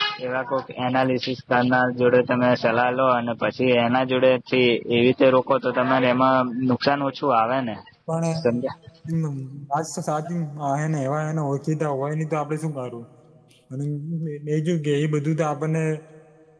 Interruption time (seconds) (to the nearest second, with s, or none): none